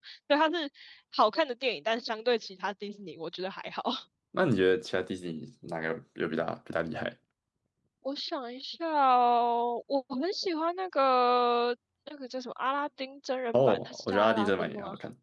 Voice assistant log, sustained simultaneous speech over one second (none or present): present